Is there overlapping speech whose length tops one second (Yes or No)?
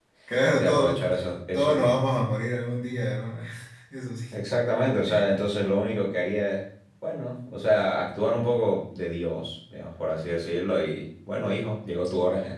No